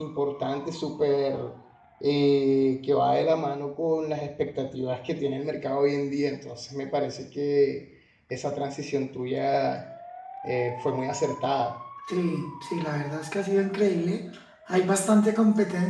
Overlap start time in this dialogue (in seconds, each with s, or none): none